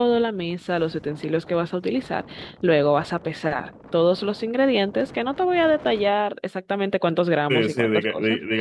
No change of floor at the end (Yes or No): No